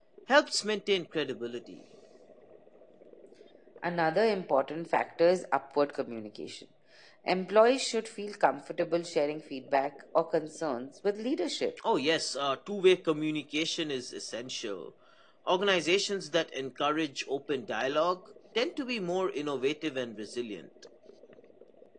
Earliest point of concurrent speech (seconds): none

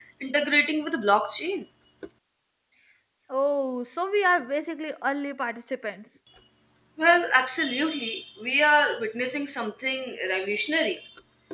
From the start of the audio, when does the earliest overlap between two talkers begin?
none

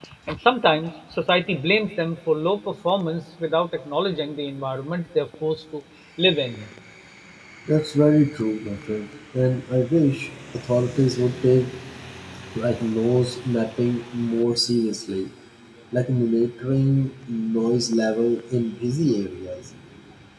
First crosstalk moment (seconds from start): none

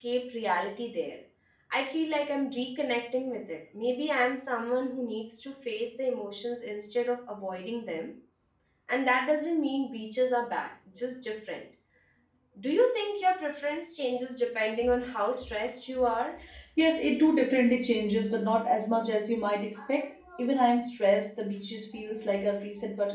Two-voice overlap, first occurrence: none

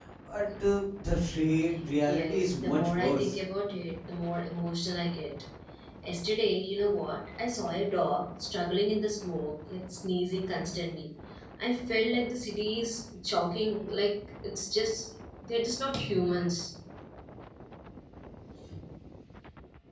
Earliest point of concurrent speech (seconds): 2.0 s

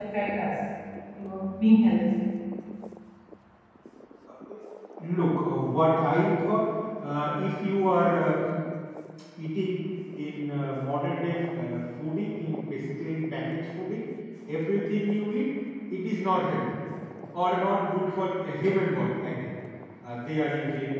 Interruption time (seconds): none

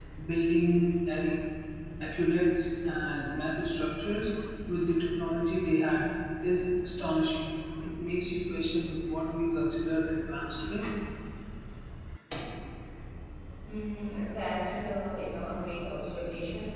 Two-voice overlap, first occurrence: none

